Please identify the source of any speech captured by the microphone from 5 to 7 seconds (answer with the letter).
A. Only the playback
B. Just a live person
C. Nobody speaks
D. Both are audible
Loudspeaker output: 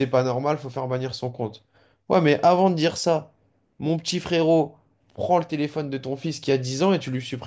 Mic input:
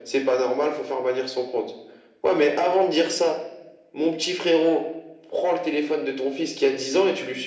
A